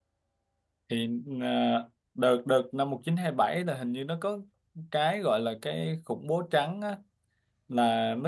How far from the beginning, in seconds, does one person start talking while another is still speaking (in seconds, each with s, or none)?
none